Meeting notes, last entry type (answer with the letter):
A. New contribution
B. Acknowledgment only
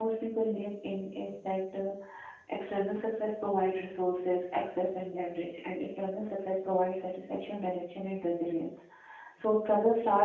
B